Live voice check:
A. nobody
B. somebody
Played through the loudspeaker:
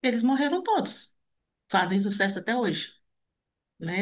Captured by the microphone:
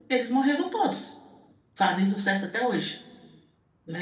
A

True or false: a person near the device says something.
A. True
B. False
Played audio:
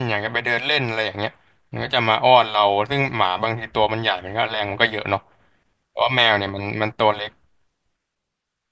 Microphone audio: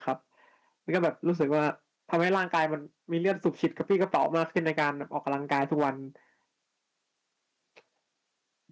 A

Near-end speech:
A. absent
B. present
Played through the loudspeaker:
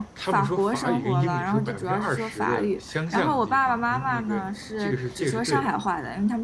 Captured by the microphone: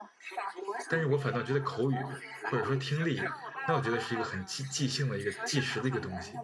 B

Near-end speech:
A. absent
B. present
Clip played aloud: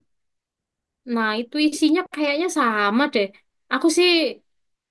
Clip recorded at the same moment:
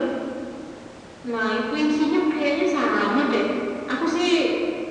A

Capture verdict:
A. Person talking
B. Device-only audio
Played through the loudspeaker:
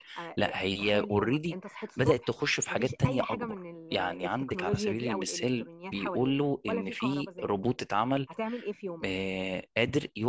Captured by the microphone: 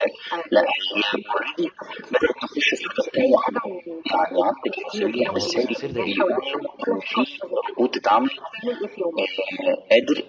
A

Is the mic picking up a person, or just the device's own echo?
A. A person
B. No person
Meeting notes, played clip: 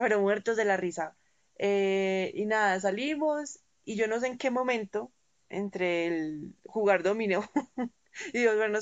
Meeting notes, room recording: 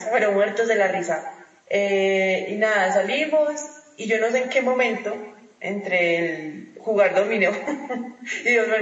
B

